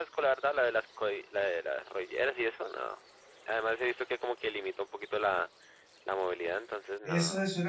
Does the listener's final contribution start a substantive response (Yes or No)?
Yes